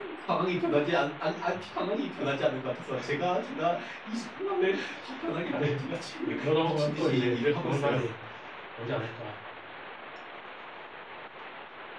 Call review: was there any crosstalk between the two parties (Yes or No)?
Yes